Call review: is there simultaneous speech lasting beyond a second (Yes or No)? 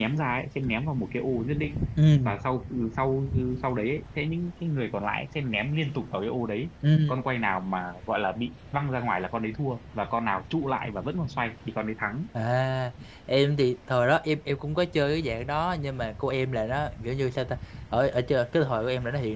No